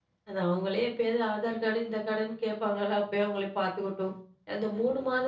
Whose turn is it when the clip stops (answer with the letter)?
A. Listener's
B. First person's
B